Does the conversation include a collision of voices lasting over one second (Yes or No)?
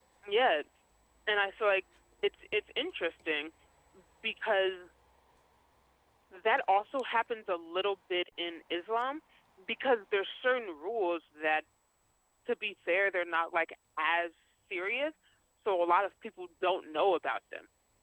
No